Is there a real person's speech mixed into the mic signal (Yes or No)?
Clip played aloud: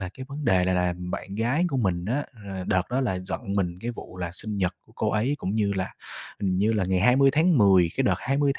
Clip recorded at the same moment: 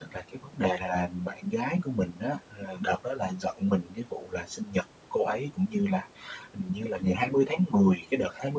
No